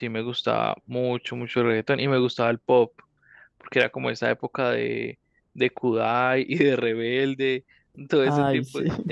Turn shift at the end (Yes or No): No